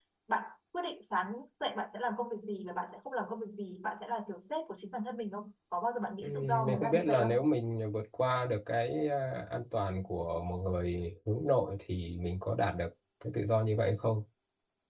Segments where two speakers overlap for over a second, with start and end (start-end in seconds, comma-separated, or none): 6.2-7.4